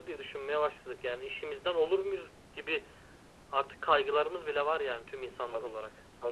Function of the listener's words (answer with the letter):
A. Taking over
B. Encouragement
A